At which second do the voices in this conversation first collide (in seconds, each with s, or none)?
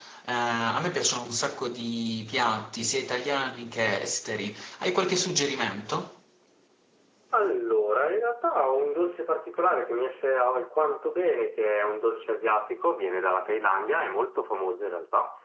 none